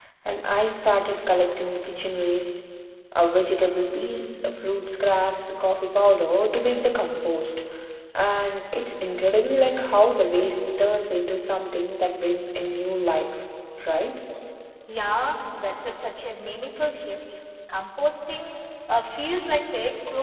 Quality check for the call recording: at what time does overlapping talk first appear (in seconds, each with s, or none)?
none